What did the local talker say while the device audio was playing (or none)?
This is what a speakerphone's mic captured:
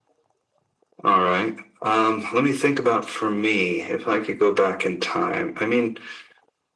none